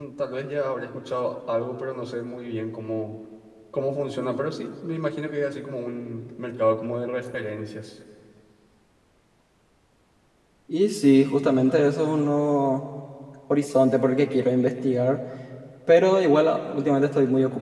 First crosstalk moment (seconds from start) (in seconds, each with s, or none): none